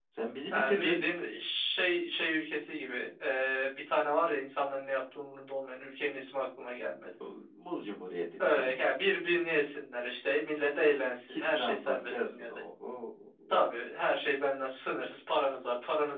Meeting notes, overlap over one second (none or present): present